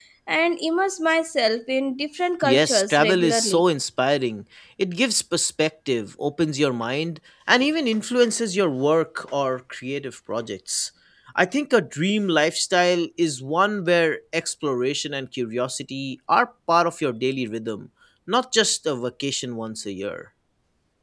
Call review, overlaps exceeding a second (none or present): present